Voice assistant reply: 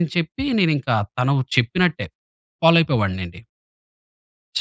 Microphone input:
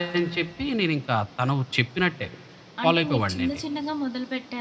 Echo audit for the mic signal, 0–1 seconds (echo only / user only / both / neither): echo only